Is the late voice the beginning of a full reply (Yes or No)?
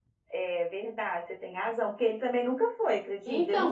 Yes